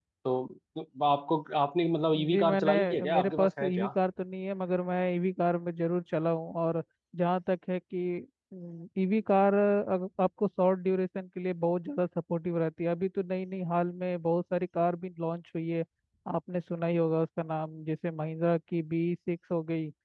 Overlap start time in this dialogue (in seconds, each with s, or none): 2.1 s